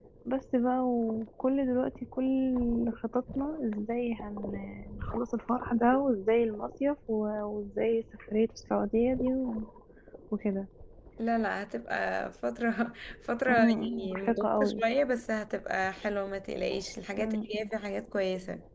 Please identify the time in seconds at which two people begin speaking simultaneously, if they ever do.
13.5 s

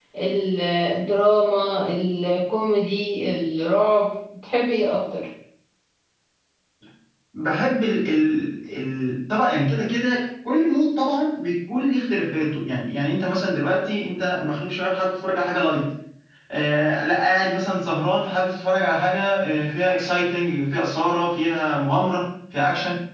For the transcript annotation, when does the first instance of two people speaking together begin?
none

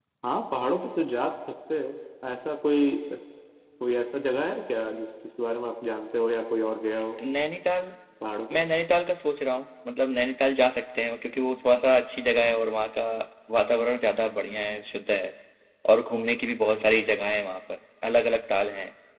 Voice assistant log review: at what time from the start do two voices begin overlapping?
none

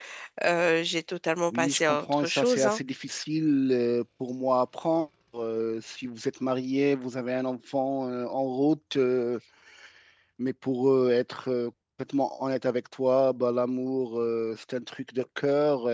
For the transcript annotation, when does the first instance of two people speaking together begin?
1.5 s

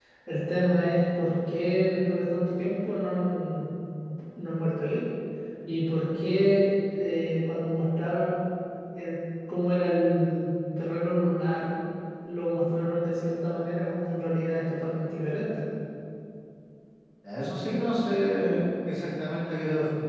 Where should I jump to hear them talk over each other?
none

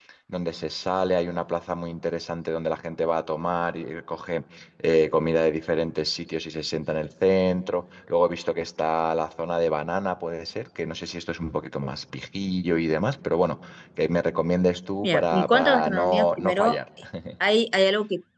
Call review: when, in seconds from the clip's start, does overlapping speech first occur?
15.0 s

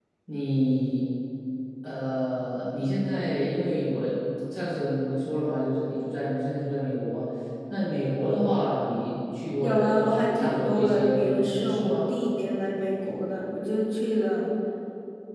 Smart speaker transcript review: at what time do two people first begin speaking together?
9.6 s

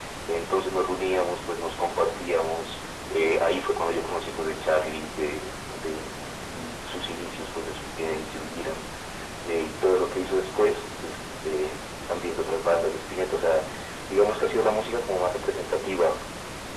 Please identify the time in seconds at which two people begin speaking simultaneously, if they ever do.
none

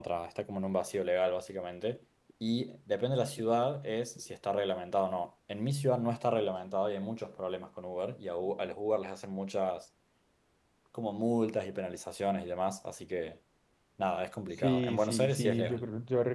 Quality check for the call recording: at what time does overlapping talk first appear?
14.6 s

